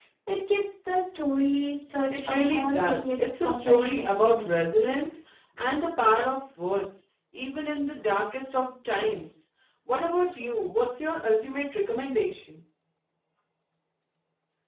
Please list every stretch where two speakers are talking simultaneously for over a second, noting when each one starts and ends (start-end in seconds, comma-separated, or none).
2.2-4.5